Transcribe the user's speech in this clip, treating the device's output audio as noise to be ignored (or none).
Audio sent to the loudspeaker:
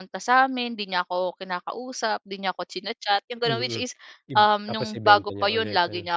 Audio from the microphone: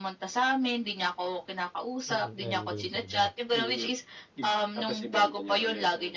Mm, ayaw mong gawin sa iba?